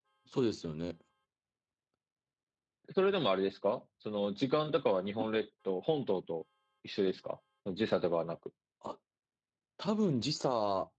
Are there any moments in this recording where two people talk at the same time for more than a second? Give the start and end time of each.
none

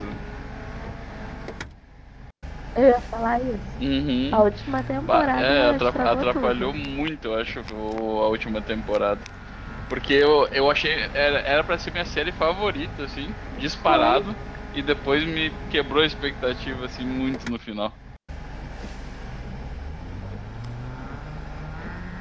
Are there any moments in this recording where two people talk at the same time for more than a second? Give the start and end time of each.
5.0-6.7

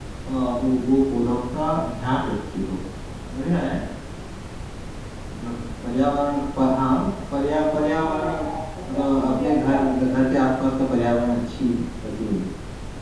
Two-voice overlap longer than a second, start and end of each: 8.9-10.2

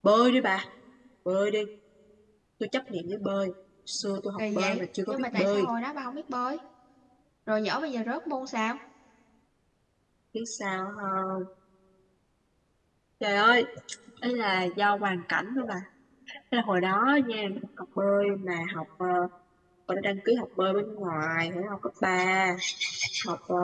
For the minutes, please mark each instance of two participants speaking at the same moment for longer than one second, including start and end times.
4.4-5.7

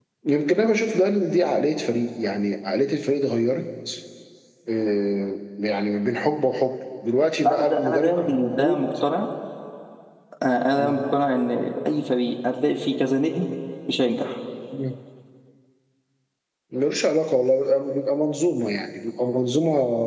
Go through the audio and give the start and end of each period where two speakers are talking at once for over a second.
7.5-8.8

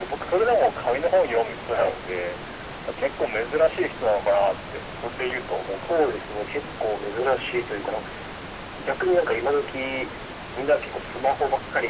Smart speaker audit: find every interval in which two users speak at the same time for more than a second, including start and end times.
none

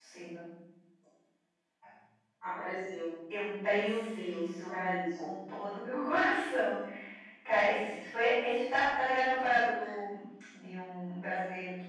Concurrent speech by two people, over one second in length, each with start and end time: 3.6-5.3

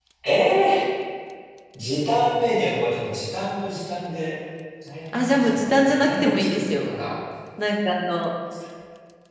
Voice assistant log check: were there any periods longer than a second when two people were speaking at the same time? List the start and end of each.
5.1-6.9

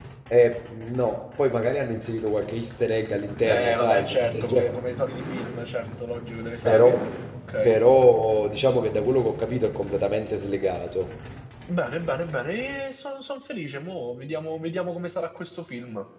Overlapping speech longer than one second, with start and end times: 3.5-4.7

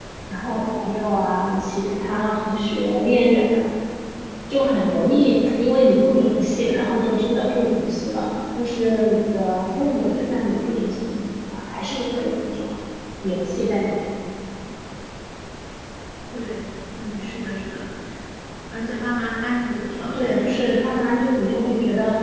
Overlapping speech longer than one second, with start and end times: none

